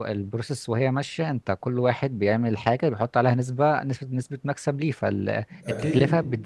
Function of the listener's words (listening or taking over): listening